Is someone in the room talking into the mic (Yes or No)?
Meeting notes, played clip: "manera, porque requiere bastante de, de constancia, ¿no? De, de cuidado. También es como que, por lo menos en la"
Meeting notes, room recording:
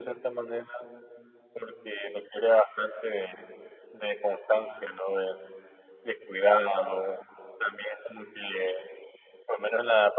No